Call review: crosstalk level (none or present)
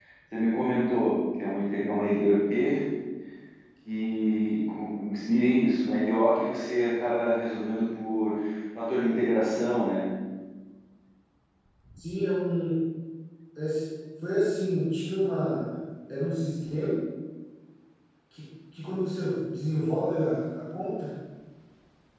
none